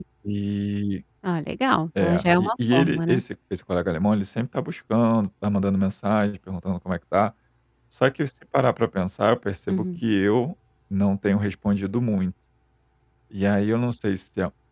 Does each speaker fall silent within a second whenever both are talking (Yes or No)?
No